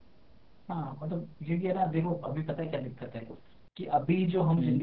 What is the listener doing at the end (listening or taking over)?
listening